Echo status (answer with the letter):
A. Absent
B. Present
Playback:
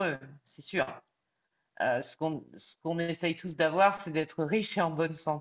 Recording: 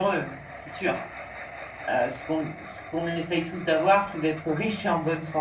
B